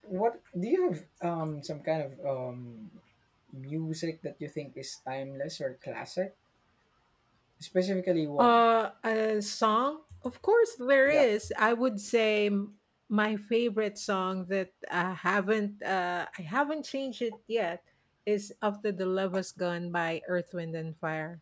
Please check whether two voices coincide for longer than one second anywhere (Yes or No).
No